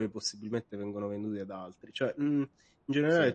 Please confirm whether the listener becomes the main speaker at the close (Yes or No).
No